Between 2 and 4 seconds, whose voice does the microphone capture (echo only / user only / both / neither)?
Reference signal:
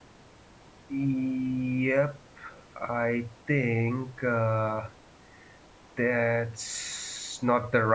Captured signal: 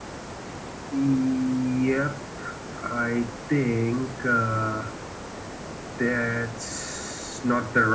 echo only